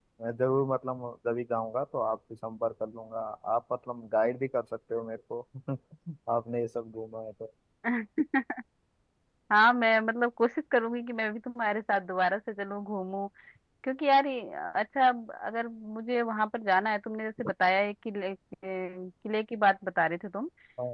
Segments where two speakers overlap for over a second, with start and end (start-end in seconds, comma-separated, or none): none